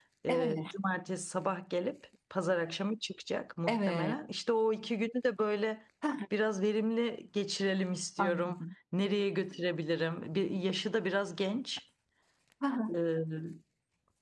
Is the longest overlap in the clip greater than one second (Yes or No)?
No